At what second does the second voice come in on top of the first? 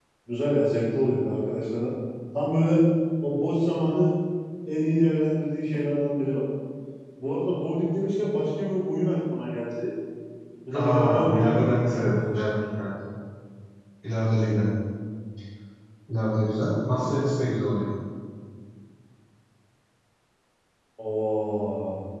10.7 s

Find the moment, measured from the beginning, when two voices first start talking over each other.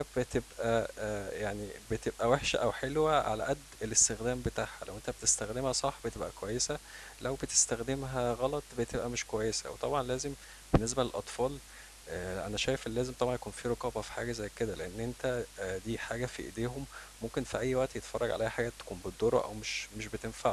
none

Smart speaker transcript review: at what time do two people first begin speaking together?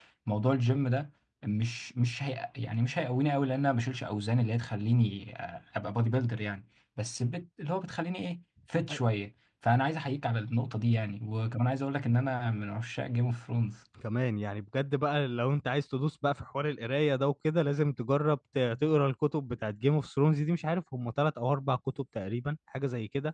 none

